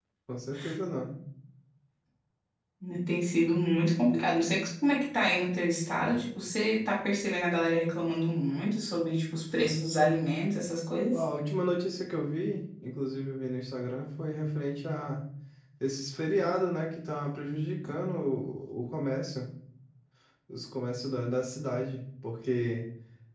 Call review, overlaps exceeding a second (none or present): none